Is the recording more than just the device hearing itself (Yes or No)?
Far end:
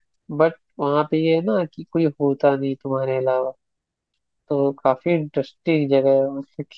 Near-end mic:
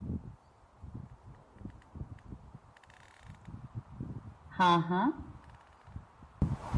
Yes